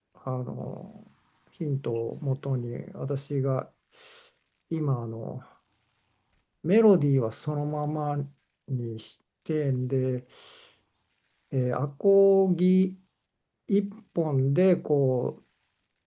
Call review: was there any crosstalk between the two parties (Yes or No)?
No